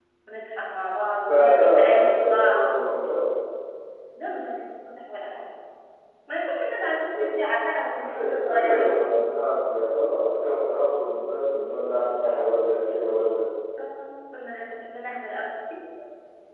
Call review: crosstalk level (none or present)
present